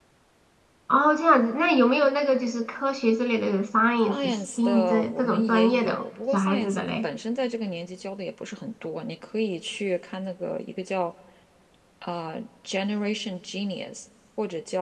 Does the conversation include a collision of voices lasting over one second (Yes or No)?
Yes